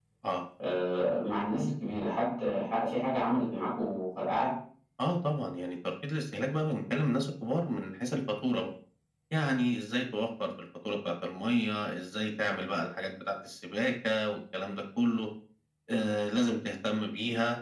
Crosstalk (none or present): none